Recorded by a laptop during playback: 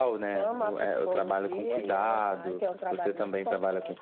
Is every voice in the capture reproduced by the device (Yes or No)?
Yes